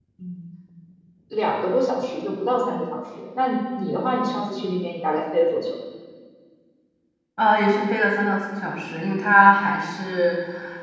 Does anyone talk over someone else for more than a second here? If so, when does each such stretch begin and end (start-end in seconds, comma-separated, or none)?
none